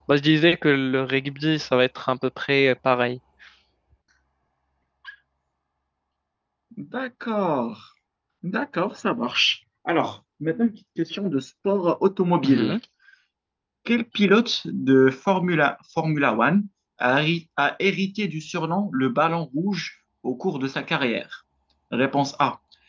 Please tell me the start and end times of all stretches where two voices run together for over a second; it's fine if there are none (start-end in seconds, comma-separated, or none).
none